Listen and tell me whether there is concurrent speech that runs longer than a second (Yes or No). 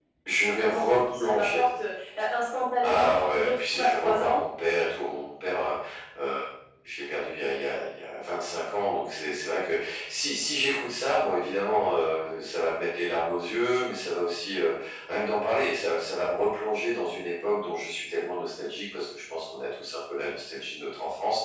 Yes